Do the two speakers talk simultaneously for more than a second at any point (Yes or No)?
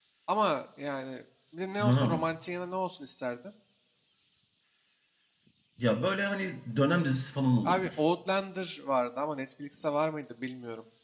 No